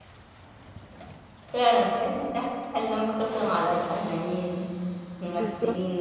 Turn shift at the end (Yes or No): Yes